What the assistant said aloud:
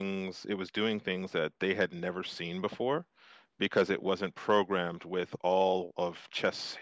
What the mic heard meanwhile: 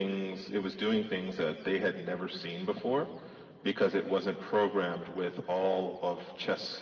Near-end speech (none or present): none